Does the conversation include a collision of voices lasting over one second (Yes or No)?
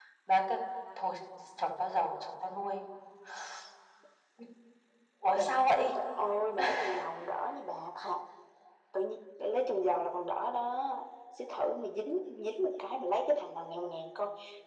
No